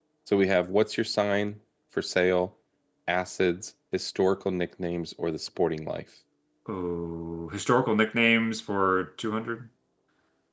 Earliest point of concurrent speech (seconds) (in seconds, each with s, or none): none